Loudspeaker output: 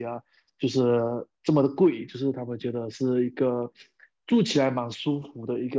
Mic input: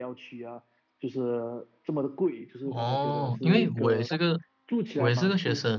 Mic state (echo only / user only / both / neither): both